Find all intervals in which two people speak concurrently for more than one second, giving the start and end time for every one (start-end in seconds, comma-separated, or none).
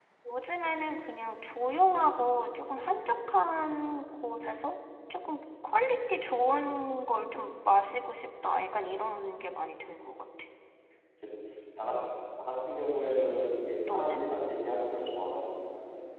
none